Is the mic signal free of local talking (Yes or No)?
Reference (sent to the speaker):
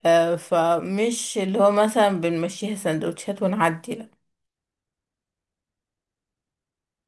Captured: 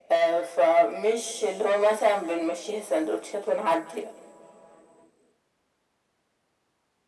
Yes